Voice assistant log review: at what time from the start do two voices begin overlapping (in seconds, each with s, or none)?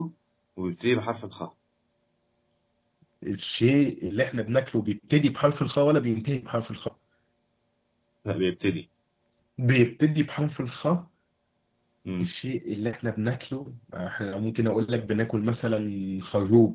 none